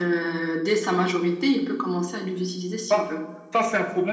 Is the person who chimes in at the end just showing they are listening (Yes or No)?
No